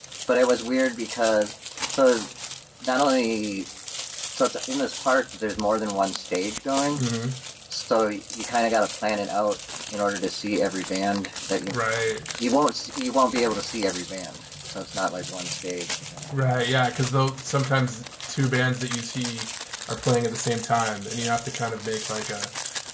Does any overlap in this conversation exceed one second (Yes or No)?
No